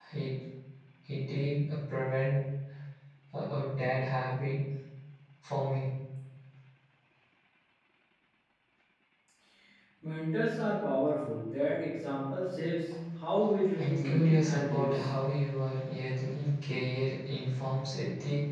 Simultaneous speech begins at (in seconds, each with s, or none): 13.8 s